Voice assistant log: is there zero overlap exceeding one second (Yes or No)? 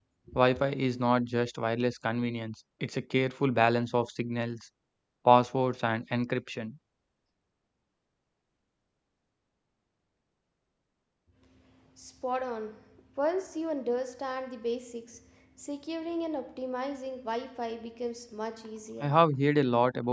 Yes